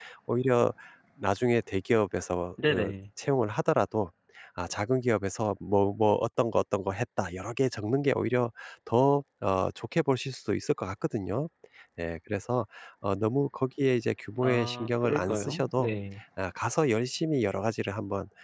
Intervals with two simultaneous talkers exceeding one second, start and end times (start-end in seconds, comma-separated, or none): 14.4-15.9